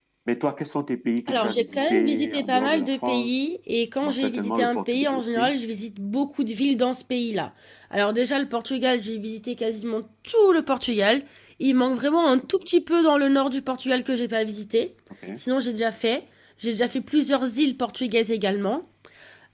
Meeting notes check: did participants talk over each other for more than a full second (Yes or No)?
Yes